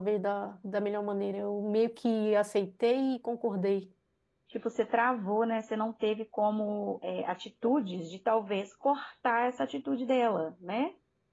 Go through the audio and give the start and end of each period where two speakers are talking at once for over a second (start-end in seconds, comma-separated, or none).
none